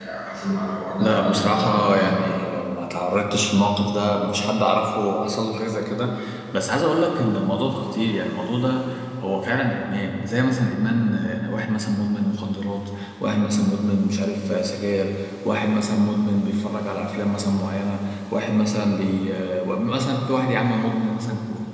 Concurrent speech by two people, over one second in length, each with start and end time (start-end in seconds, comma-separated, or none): 1.0-2.5